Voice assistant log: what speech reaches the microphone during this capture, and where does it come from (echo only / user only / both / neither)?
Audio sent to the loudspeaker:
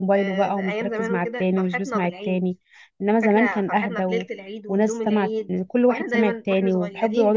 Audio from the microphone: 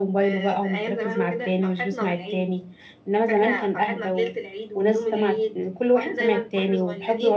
echo only